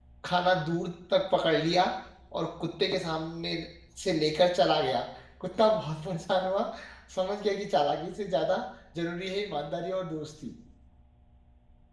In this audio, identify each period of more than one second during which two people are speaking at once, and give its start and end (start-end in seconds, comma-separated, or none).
none